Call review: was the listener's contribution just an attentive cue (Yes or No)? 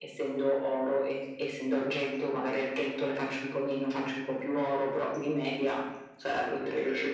No